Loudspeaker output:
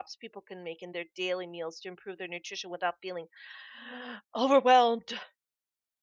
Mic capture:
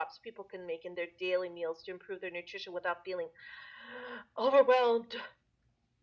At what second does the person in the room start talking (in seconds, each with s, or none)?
none